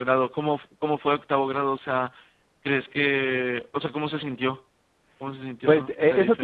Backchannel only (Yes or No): No